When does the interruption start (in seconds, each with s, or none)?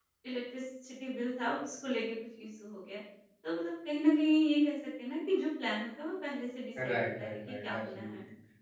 6.8 s